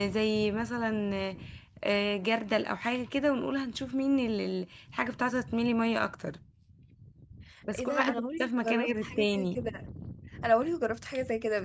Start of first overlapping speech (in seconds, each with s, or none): 7.8 s